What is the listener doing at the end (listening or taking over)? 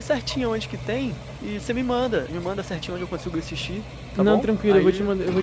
taking over